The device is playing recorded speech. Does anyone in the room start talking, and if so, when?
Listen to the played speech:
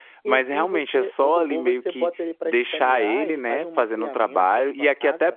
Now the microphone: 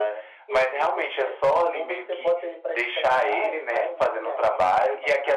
none

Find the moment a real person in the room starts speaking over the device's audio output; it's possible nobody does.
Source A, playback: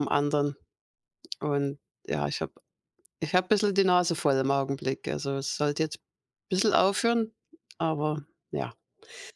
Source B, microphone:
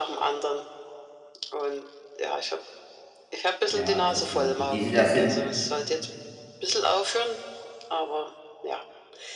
3.7 s

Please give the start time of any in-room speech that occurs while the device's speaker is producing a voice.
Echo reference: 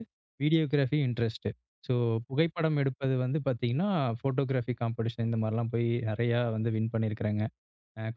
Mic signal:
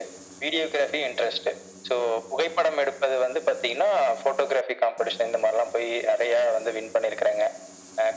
none

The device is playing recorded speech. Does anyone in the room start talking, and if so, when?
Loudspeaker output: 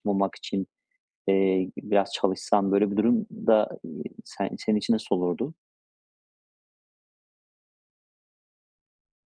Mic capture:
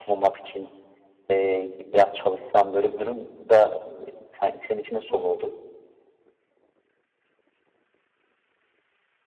5.1 s

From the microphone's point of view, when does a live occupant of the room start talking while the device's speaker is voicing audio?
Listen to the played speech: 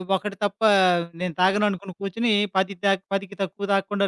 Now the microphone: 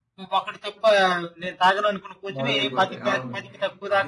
2.4 s

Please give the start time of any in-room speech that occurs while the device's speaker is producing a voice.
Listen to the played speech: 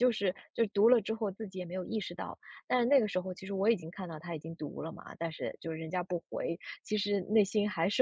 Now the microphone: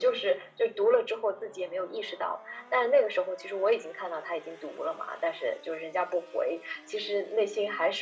none

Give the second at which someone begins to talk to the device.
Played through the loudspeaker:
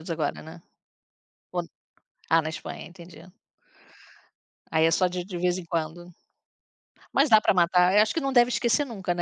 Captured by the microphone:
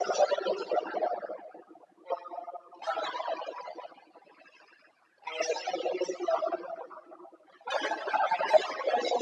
none

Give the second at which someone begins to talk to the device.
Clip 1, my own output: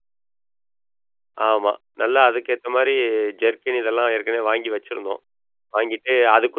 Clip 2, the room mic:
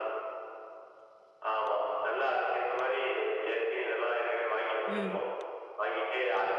4.9 s

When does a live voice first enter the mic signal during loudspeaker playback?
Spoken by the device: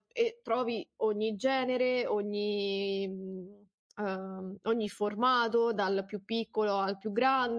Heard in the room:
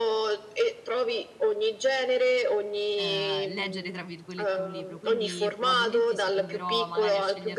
2.9 s

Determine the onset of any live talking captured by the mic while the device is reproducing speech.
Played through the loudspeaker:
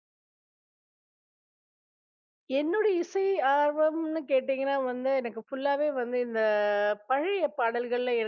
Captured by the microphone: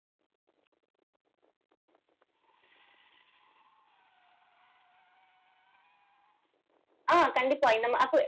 7.1 s

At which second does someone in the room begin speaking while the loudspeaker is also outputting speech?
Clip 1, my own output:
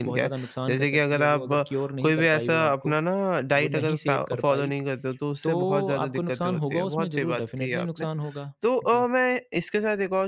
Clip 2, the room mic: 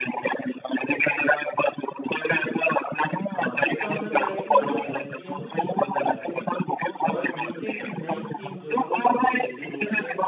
3.3 s

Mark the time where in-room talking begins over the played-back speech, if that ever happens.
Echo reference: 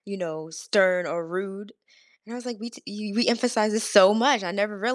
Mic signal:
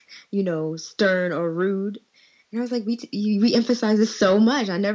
none

